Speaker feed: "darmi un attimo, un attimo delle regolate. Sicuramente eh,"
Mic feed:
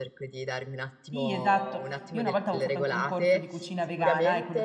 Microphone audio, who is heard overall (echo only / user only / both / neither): both